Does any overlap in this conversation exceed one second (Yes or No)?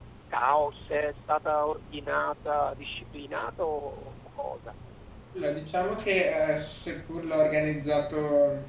No